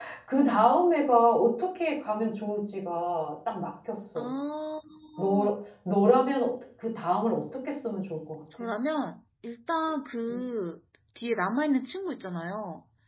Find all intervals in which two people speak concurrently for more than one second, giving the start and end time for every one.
none

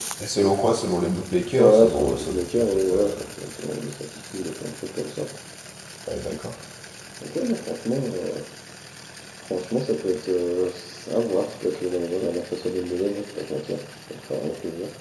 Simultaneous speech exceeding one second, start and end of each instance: 1.6-3.1

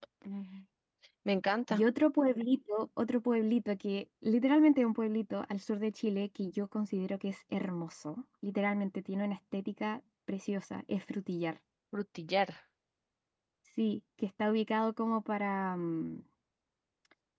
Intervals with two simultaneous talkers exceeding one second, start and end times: none

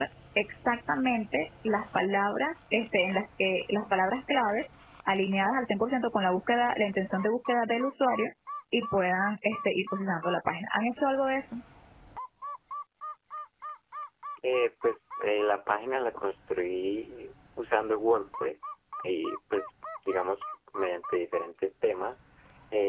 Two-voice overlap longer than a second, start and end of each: none

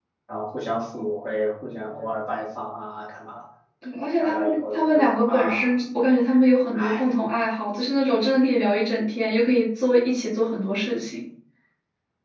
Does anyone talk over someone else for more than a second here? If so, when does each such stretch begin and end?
4.2-5.7

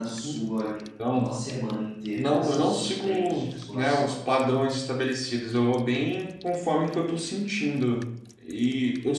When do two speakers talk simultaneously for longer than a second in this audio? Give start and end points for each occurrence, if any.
2.2-4.1

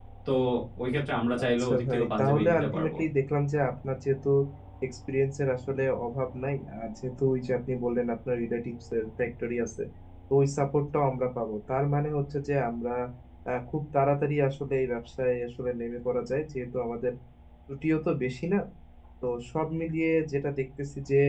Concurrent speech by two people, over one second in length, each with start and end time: 1.5-2.9

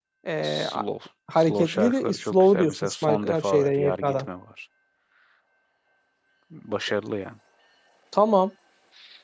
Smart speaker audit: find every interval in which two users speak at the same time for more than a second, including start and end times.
1.4-4.3

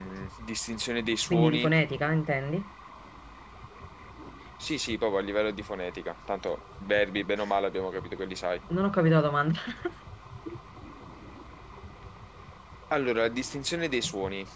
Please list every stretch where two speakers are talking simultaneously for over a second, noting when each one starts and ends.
none

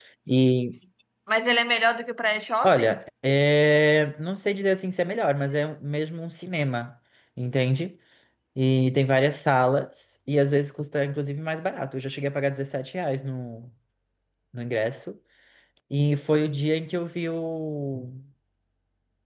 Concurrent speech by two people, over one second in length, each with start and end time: none

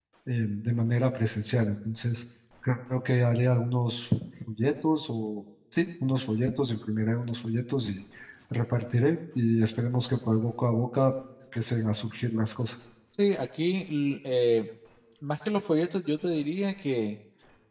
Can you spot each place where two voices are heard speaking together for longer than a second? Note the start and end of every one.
none

